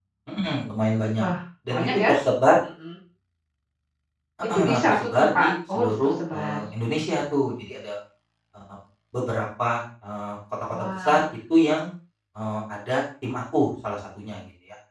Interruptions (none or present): present